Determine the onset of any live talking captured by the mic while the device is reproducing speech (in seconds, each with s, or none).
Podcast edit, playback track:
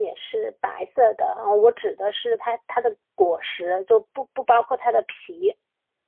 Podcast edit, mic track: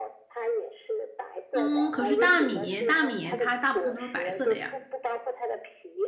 1.5 s